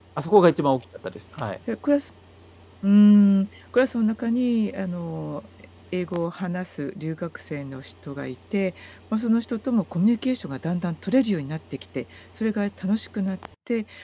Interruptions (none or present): none